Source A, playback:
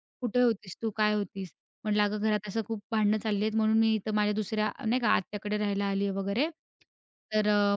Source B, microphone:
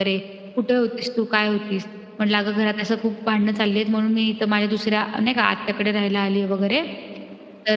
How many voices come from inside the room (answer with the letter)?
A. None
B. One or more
A